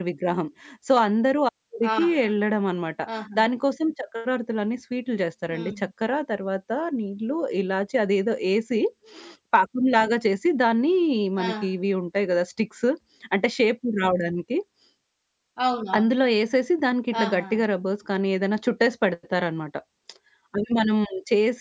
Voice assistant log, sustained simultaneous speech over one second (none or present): none